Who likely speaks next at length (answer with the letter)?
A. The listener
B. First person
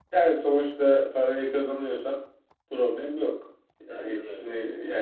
B